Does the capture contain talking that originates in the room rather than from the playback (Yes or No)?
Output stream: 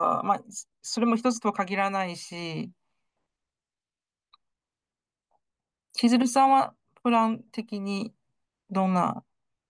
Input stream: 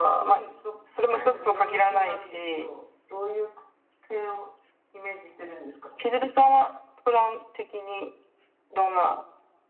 Yes